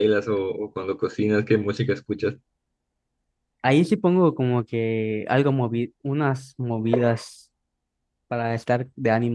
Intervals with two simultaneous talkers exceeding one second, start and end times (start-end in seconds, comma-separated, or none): none